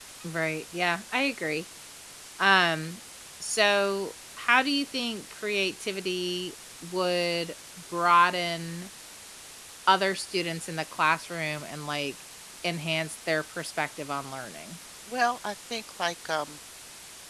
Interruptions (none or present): none